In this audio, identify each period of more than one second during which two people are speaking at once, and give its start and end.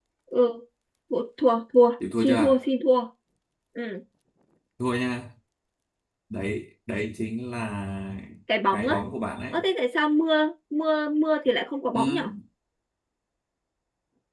none

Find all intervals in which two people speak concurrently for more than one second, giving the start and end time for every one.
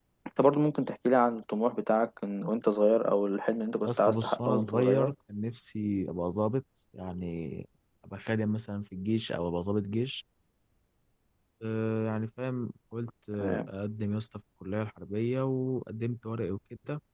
3.8-5.1

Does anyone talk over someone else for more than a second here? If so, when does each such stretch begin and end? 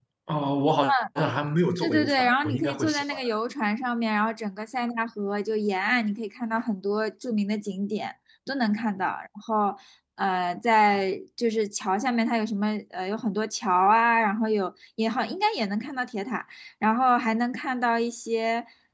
1.8-3.3

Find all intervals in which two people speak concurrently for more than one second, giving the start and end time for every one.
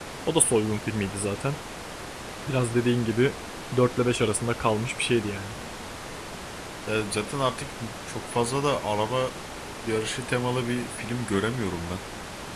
none

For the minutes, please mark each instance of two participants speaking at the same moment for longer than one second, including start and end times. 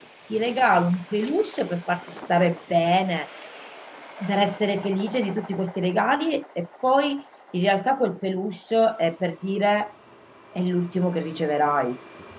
none

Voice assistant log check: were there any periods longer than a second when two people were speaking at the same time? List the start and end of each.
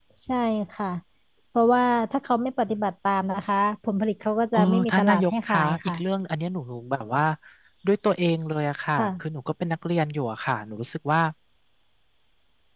4.5-6.0

